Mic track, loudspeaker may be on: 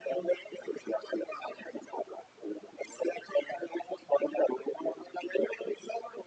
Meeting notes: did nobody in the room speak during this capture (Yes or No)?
Yes